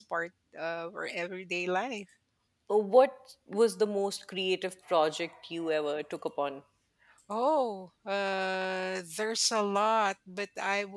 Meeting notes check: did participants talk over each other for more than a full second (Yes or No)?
No